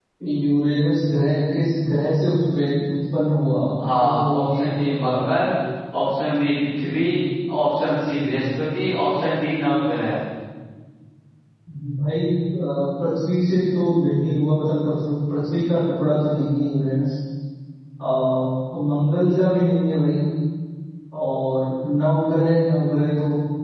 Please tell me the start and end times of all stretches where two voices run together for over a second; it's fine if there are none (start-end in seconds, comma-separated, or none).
4.0-5.2